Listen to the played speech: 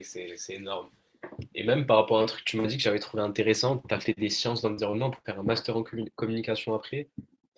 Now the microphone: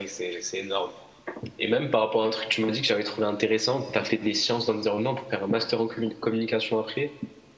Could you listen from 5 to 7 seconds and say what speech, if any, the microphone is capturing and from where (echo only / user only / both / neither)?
echo only